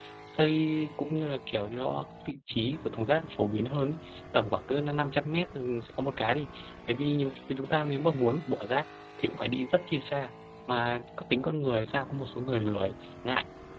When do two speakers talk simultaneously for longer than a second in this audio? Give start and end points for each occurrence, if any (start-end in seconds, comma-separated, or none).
none